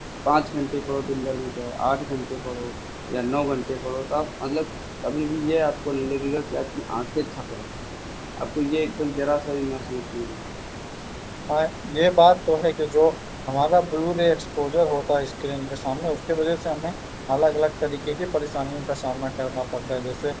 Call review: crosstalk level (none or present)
none